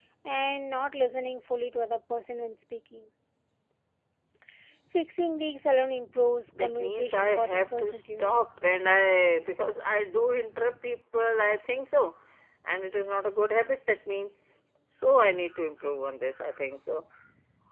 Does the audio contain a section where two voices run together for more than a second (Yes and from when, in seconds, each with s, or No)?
Yes, from 6.5 s